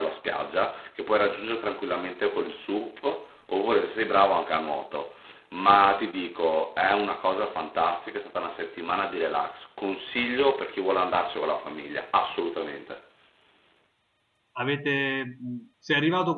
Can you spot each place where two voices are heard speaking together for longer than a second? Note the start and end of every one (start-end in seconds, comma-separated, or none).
none